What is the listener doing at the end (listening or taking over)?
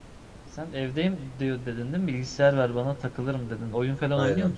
taking over